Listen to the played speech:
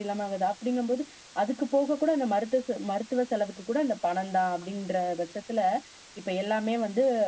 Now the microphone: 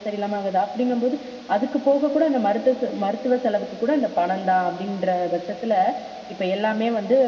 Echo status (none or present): present